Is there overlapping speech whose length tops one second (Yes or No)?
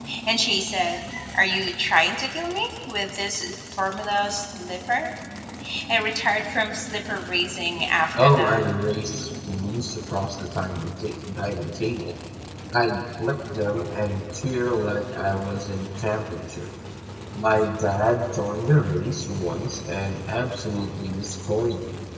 No